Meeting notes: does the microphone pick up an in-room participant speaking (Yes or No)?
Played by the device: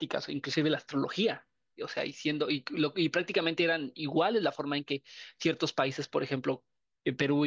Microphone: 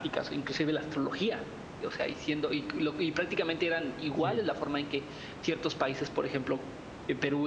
Yes